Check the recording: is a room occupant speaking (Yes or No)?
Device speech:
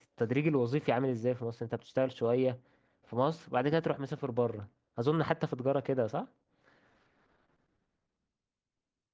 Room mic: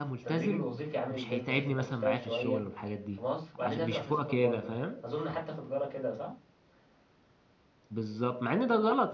Yes